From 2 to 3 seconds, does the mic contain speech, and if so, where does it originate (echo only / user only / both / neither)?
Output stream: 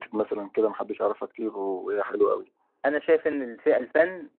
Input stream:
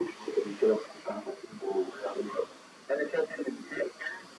echo only